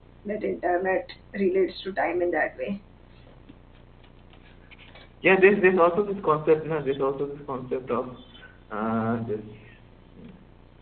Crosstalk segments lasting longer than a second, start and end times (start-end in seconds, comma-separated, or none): none